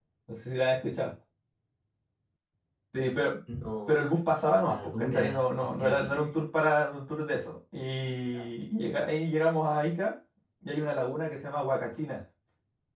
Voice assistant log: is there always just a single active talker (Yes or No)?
No